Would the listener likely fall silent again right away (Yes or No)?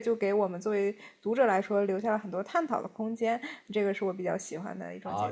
No